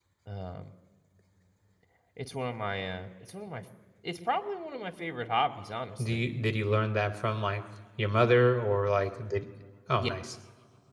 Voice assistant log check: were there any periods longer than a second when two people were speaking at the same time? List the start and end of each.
none

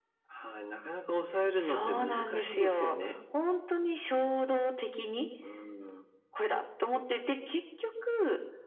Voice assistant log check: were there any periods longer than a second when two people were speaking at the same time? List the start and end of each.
1.6-3.0

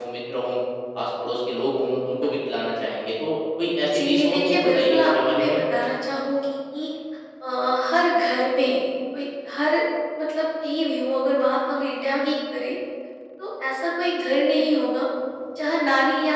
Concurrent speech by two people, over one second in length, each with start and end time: 3.9-5.6

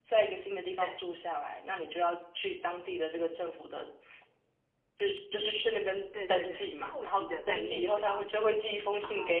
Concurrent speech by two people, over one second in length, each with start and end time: 6.3-8.3

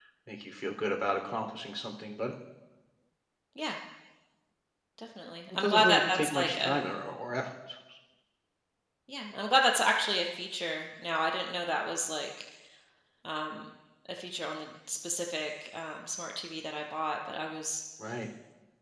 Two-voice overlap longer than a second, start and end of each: 5.5-6.8

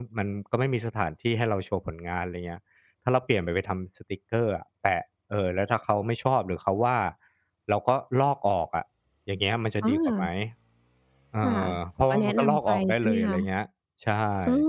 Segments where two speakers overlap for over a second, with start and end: 12.0-13.5

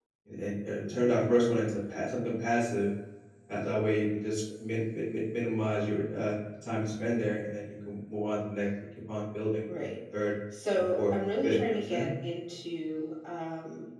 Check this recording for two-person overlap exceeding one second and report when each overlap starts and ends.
10.8-12.1

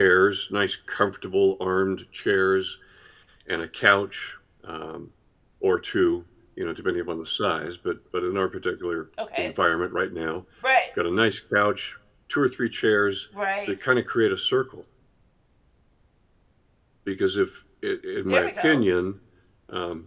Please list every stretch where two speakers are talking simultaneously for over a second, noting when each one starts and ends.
none

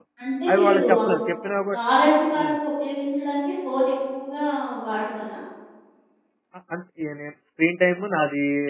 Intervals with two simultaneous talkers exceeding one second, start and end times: none

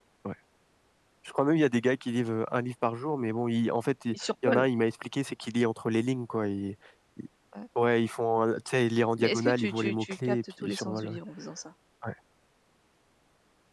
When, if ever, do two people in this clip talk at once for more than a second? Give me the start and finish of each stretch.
9.2-11.2

